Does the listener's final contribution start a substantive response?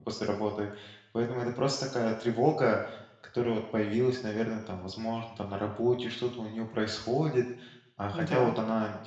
No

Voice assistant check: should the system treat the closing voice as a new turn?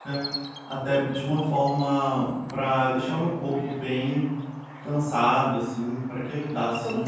Yes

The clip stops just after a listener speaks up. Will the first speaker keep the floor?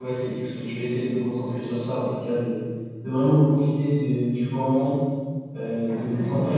Yes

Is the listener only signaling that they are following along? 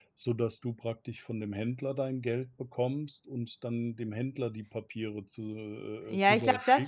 No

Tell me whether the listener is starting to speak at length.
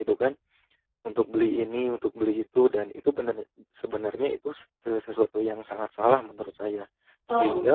No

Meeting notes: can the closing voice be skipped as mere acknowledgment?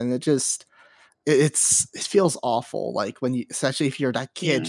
Yes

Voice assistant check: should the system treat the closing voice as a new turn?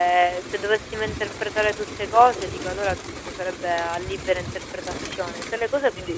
No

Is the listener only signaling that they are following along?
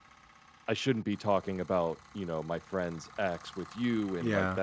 Yes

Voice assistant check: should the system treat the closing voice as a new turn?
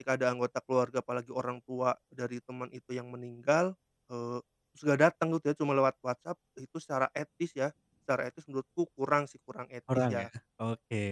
Yes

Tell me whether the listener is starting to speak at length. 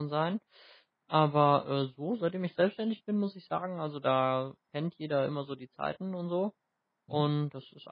No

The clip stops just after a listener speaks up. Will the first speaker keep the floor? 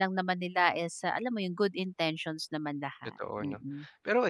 No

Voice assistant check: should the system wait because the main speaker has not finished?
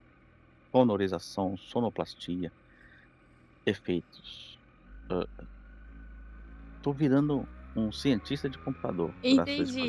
No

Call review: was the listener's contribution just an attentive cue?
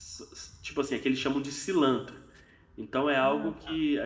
Yes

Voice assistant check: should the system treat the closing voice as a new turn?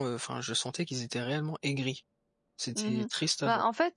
Yes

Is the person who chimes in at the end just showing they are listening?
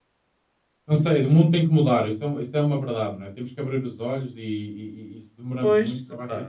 No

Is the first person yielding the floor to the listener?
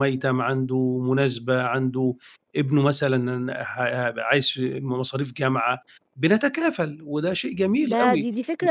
Yes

